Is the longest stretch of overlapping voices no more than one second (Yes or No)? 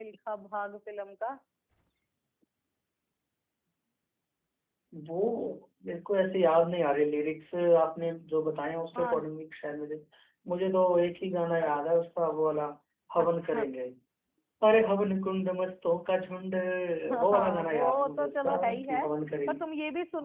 No